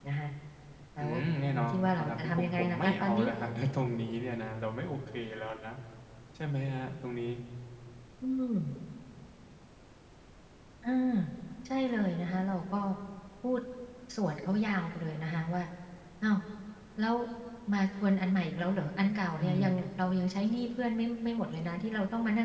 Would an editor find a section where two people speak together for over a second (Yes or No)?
Yes